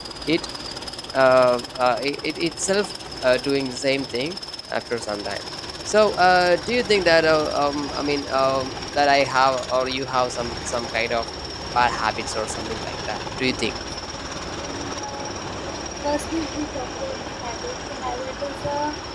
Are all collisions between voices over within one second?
Yes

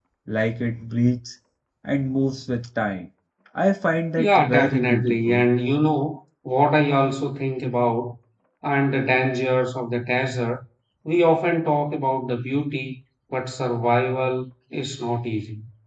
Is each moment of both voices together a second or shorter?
No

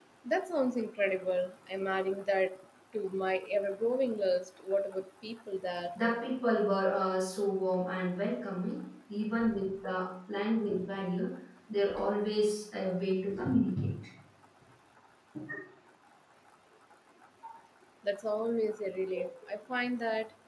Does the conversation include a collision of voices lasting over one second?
No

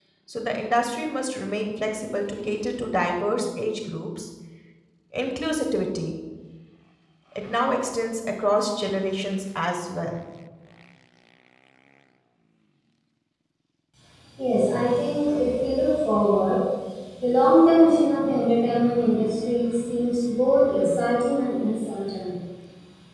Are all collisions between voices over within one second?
Yes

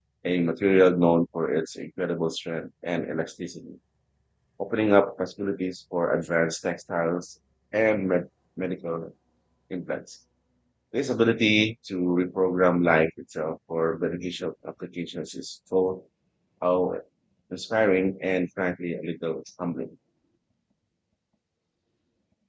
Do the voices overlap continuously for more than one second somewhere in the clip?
No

